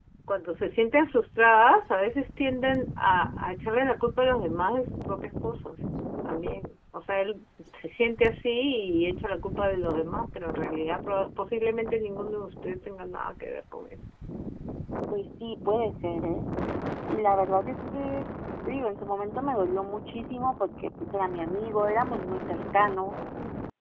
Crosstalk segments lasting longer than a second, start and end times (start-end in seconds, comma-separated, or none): none